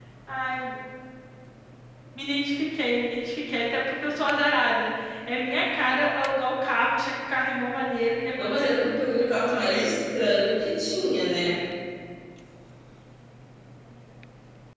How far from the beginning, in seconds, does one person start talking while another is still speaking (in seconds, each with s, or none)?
8.4 s